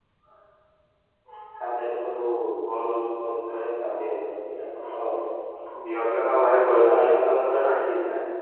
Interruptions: none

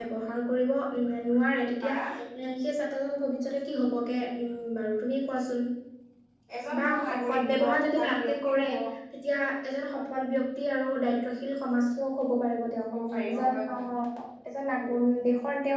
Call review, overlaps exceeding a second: present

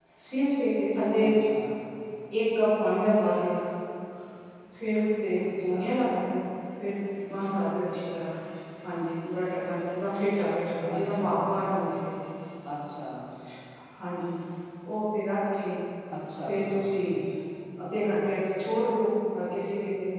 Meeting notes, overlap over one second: none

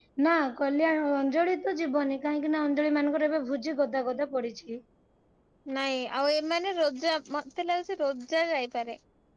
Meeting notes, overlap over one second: none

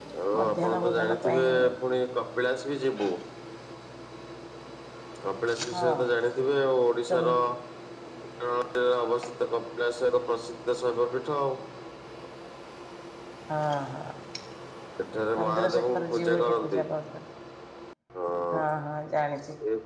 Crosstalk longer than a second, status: present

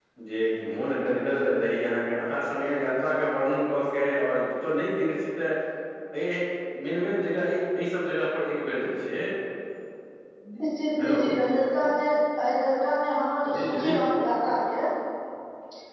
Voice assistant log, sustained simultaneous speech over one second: none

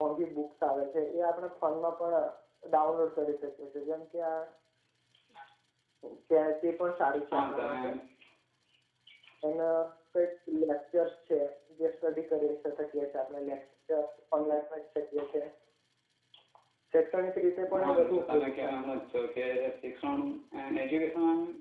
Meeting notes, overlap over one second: present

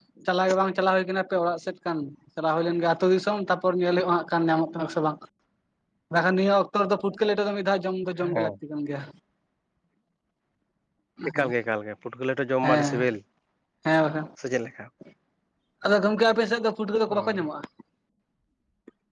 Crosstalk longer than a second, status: none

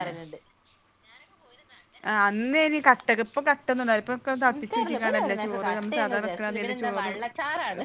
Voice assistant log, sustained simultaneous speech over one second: present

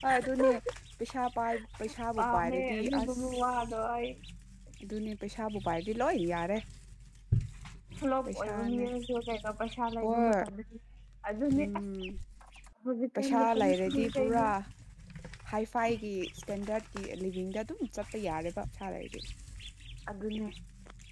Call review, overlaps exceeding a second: present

